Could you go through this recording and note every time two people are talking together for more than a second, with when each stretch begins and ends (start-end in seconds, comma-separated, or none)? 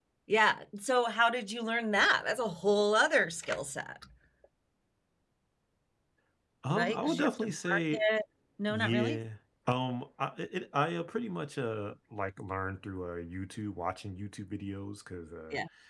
6.7-8.0